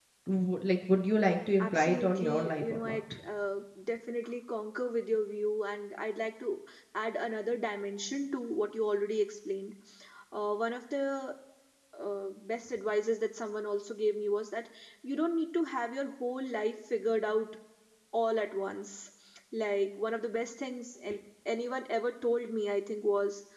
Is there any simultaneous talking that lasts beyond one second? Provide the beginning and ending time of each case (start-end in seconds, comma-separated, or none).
1.6-3.0